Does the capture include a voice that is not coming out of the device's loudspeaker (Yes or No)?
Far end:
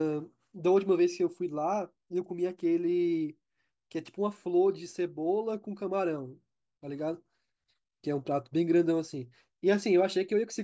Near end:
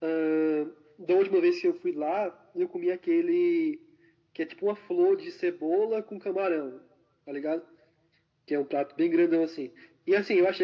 No